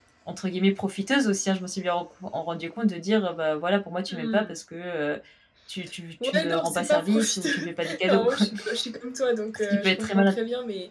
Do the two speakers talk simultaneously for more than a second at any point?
Yes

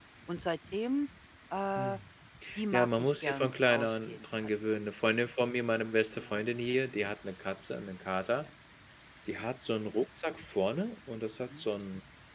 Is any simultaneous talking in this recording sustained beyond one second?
Yes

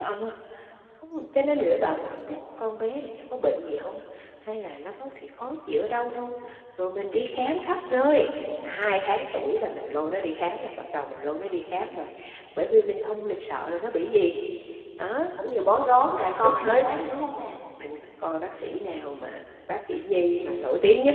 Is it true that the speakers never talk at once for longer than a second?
Yes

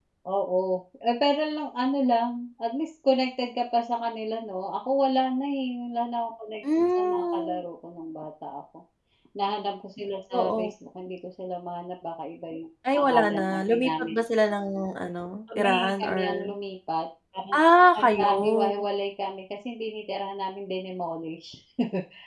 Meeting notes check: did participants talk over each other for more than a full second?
Yes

